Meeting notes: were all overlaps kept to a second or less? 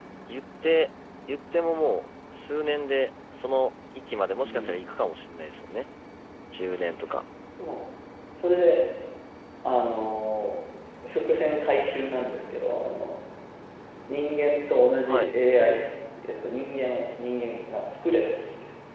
Yes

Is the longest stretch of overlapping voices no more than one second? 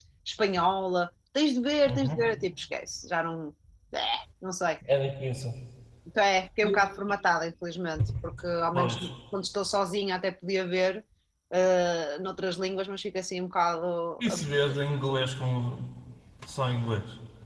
Yes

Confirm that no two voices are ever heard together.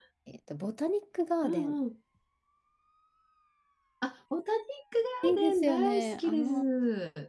No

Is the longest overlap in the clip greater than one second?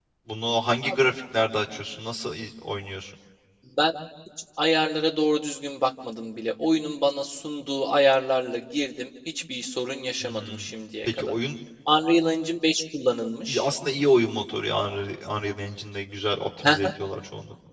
No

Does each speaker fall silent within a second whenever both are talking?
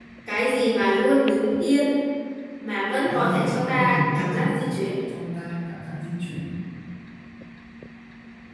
No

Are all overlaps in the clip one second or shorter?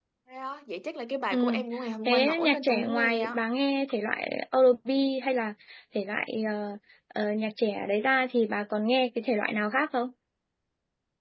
No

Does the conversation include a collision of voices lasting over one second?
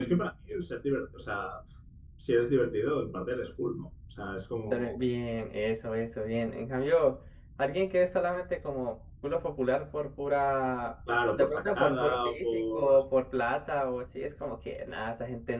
Yes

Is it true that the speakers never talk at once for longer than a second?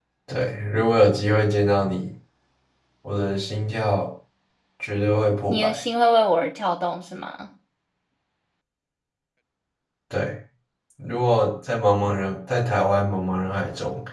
Yes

